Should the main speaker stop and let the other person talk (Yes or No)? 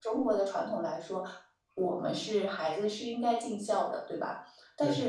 No